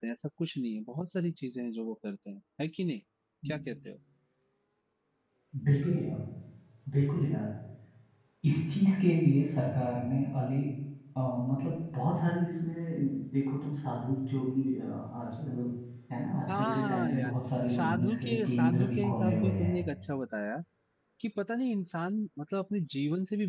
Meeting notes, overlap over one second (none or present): present